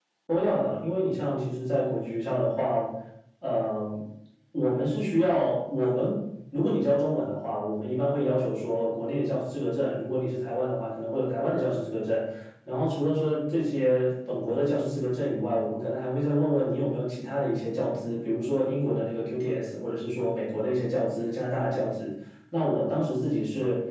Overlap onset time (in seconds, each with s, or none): none